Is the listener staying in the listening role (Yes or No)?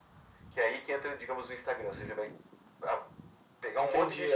No